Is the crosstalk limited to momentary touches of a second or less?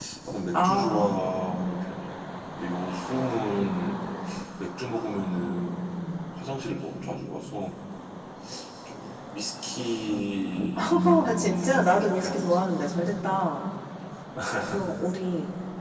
No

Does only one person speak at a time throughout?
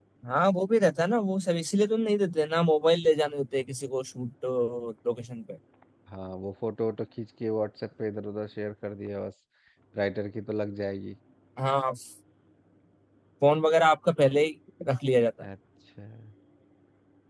Yes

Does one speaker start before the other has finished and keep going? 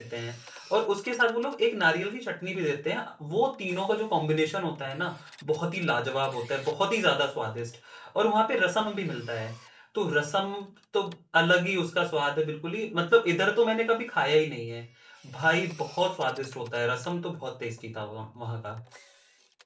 No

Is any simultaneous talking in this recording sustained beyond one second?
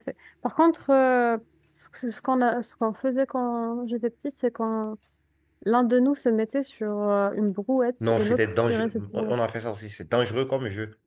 Yes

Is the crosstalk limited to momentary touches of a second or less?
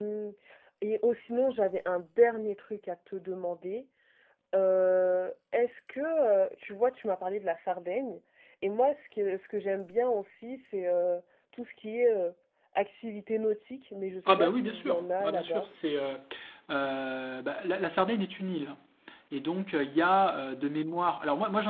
No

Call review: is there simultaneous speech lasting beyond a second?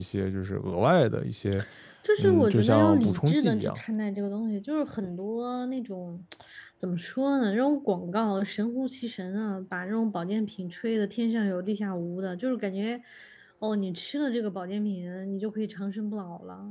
Yes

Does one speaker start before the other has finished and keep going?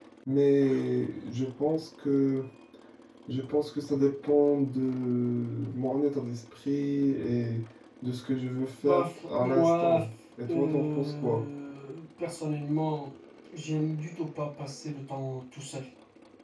Yes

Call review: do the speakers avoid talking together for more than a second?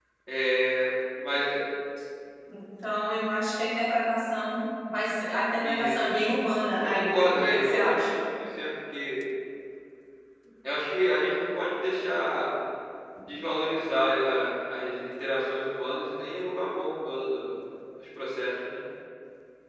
No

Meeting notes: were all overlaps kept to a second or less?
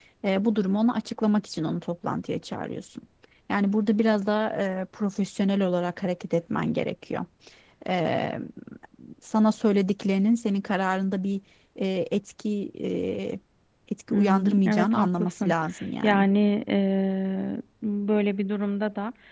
No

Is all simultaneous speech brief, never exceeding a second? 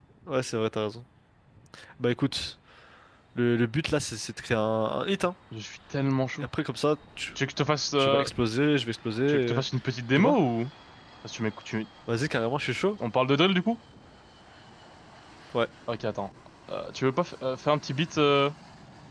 Yes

